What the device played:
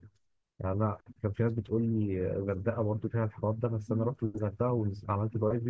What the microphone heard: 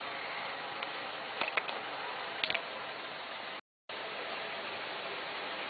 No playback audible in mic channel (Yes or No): Yes